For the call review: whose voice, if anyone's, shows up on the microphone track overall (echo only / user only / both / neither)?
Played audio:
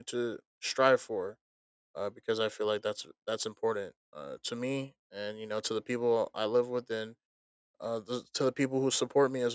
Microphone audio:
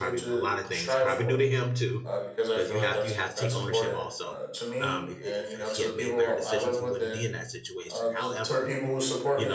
both